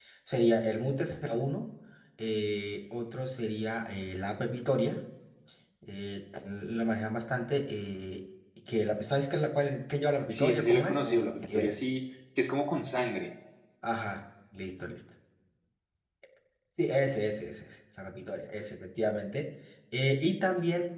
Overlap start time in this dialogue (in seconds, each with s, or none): 10.3 s